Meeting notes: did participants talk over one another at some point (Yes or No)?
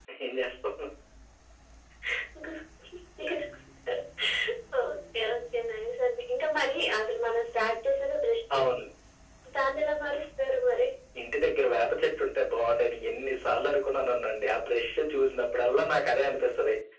No